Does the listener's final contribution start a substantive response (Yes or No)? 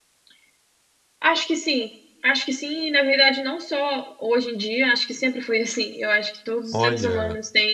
No